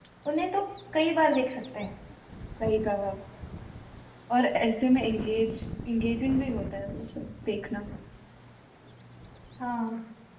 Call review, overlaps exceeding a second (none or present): none